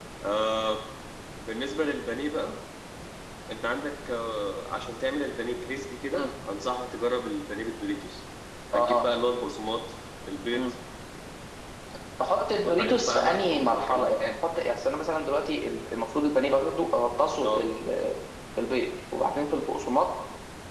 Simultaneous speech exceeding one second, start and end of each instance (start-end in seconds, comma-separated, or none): 12.6-14.2